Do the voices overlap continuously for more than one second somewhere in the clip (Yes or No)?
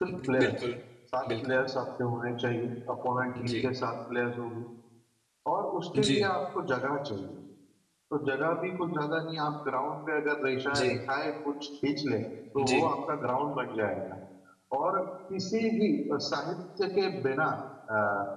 No